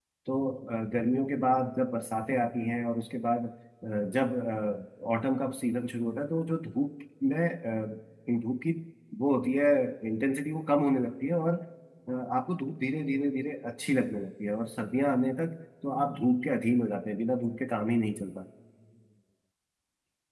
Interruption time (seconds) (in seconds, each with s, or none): none